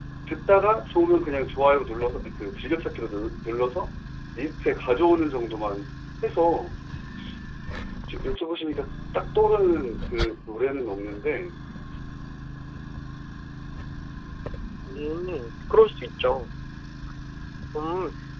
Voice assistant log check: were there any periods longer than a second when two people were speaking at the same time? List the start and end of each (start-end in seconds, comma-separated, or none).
none